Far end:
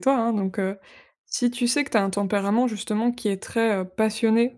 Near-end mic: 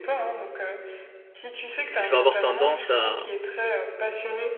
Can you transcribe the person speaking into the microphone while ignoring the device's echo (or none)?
je vais avoir tendance à